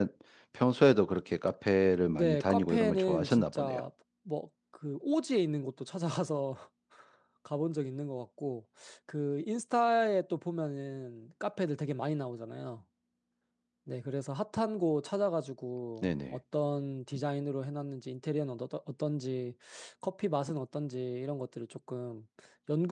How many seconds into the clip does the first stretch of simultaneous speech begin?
2.1 s

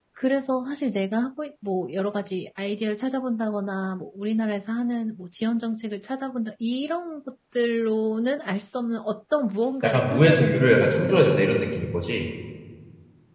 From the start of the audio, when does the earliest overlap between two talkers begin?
9.8 s

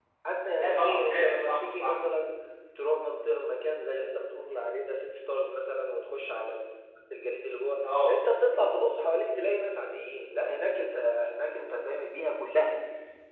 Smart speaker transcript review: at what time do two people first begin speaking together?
0.6 s

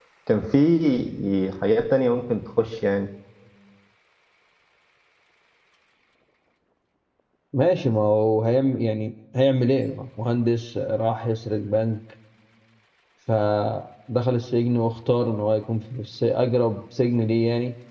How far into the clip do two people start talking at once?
none

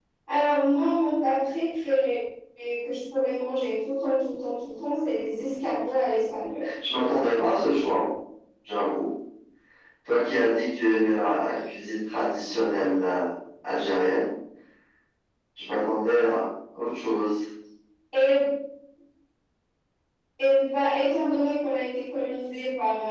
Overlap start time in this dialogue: none

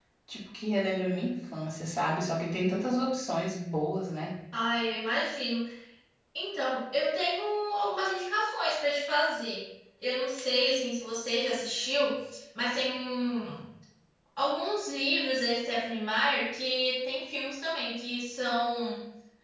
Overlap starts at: none

